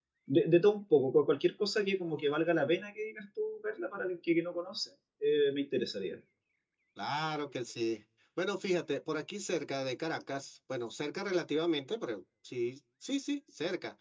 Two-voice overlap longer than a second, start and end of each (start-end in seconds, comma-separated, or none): none